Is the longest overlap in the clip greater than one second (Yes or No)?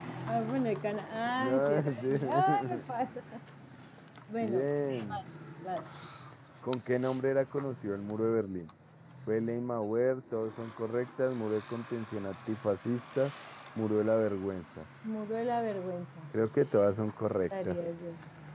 Yes